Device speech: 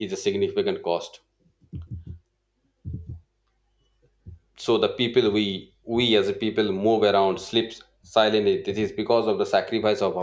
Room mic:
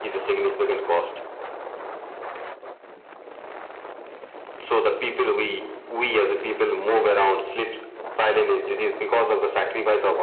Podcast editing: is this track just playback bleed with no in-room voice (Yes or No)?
Yes